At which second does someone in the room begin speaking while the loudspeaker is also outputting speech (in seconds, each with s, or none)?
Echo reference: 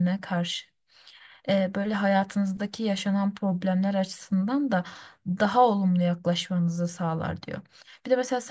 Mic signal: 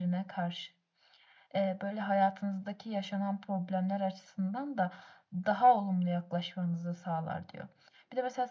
none